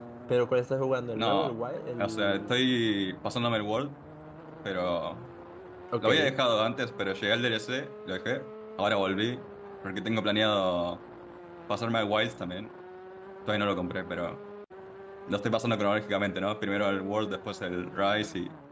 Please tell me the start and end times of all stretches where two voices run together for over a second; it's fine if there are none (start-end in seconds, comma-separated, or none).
1.2-2.6